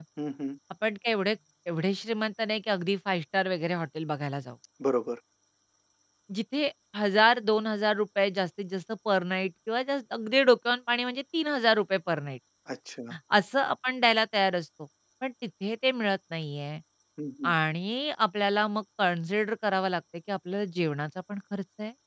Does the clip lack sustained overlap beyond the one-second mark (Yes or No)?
Yes